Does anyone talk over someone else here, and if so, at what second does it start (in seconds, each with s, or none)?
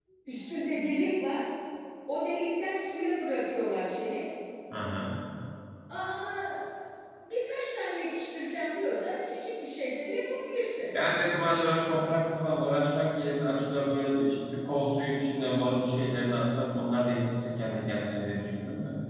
none